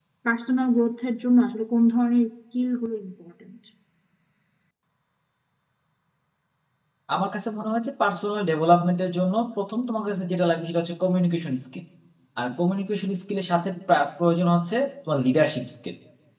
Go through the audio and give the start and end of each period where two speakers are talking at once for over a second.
none

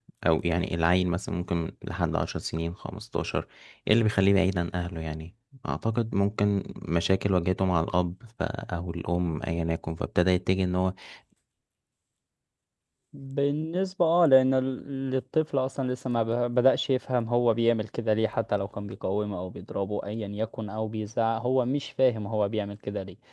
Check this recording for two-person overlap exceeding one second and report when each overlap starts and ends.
none

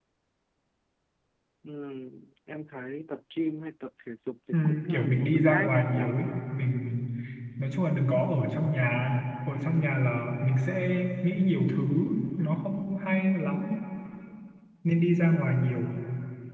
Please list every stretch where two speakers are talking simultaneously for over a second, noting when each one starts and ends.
4.5-6.0

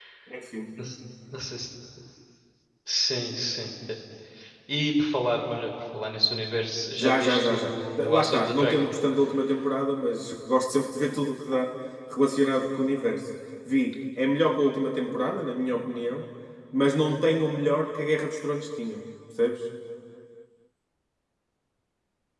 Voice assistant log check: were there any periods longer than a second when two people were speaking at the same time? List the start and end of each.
7.0-8.8

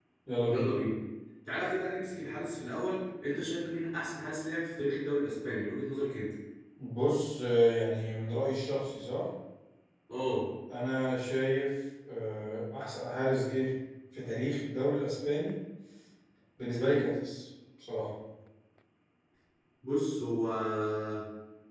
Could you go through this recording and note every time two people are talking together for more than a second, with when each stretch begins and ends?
none

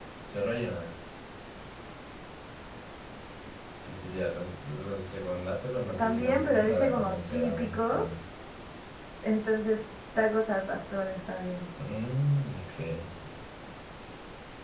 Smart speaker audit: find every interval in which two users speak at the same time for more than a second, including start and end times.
6.0-8.0

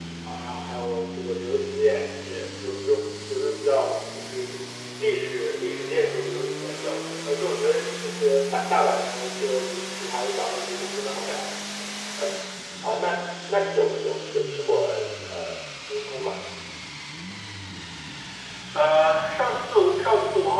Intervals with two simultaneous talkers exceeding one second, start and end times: none

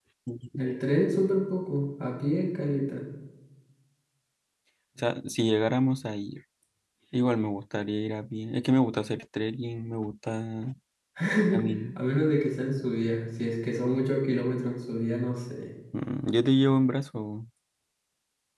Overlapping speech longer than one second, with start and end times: none

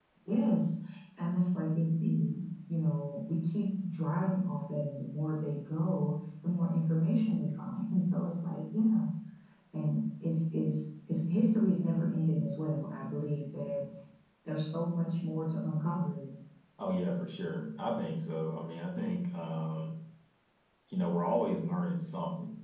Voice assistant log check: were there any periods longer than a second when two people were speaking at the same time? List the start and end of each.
none

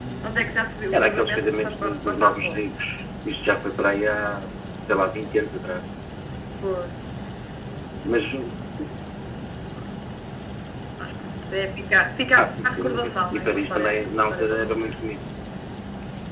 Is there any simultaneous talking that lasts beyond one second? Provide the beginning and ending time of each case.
0.9-2.6, 12.4-14.9

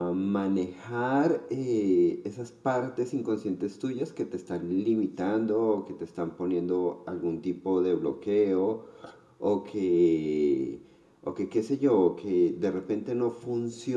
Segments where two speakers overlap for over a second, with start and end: none

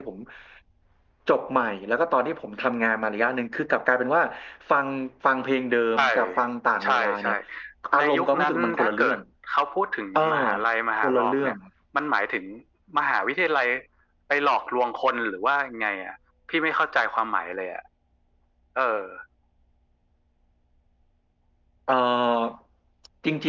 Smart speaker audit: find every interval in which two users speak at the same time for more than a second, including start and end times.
8.0-9.2

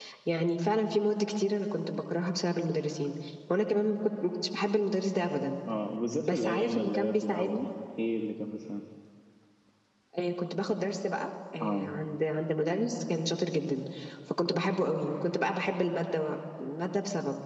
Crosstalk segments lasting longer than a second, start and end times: 6.2-7.6

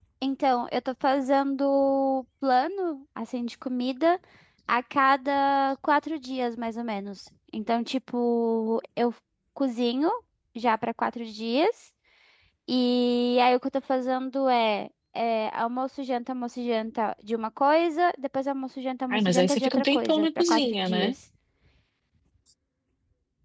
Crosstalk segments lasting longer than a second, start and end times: 19.1-21.1

